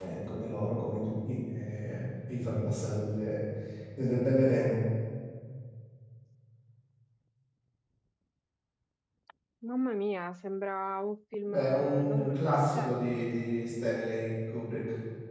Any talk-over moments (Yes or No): Yes